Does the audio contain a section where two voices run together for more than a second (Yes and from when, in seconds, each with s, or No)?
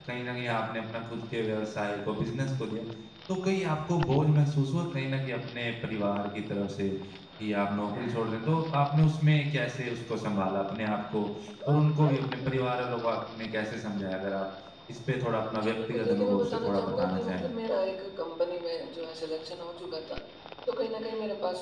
Yes, from 15.6 s